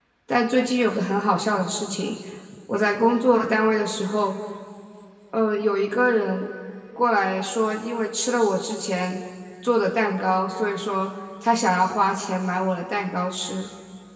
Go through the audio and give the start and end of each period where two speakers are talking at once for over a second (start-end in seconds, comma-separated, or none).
none